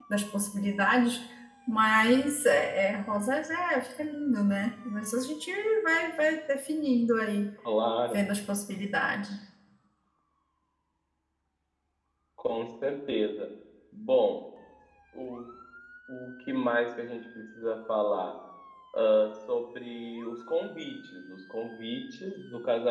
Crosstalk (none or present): none